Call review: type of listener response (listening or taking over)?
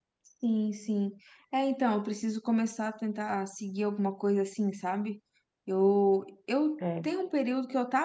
listening